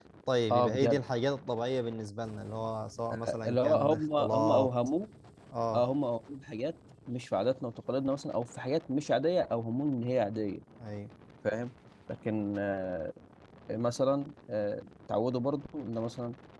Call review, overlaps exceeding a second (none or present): present